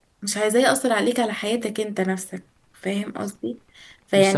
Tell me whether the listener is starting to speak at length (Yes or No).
No